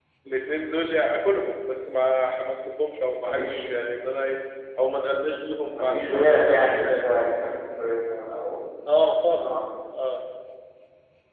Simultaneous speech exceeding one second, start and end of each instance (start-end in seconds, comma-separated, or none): 5.8-7.1